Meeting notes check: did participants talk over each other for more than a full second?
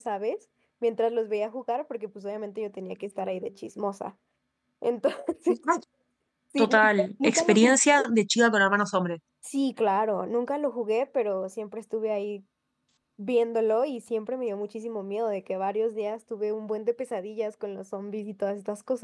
Yes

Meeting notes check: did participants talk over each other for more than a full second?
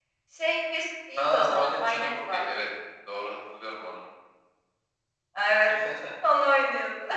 Yes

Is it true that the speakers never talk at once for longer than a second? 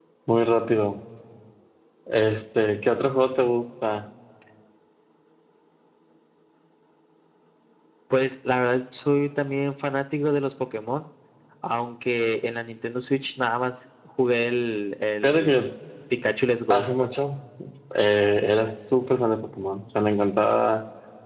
Yes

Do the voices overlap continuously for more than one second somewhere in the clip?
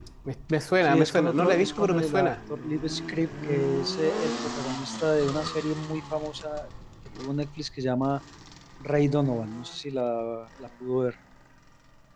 Yes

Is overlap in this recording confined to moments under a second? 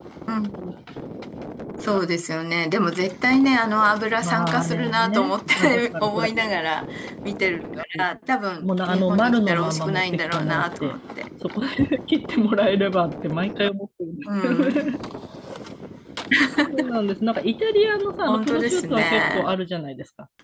No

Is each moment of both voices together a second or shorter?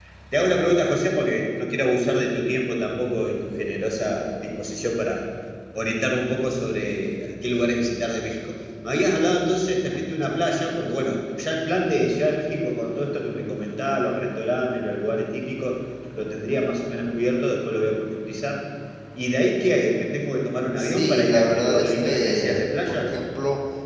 No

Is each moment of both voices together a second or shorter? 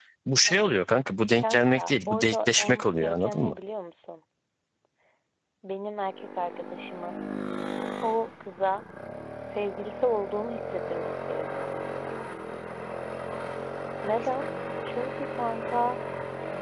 No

